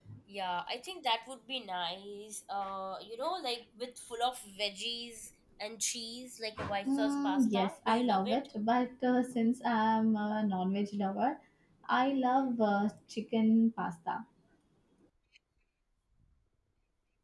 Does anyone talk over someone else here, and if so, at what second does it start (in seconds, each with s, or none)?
6.9 s